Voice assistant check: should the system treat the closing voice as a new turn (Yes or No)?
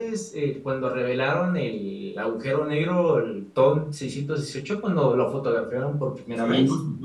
Yes